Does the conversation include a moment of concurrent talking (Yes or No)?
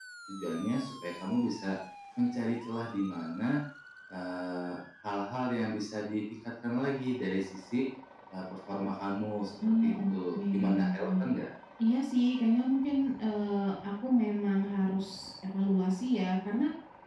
Yes